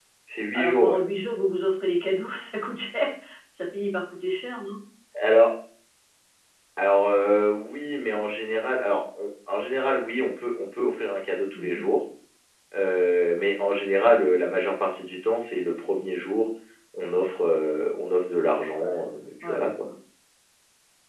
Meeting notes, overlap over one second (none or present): none